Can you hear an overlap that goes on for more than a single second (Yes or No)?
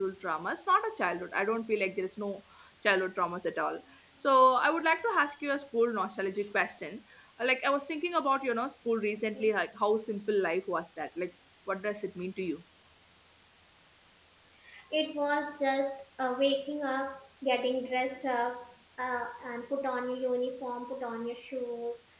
No